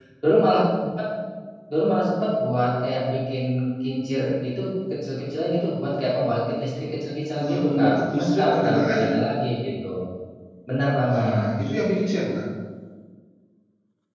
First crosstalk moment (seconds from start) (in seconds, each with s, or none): 7.4 s